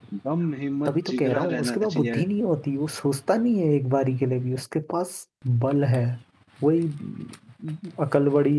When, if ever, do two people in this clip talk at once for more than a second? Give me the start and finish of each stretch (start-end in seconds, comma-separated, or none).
0.8-2.2